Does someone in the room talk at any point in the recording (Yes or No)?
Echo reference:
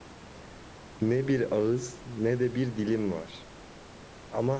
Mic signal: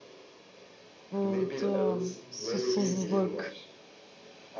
Yes